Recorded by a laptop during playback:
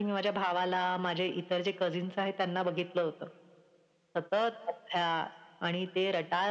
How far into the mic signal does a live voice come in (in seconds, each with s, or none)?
none